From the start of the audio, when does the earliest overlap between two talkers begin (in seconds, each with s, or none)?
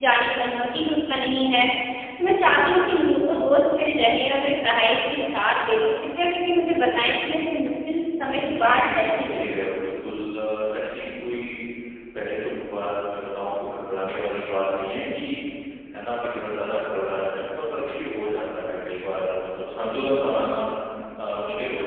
8.4 s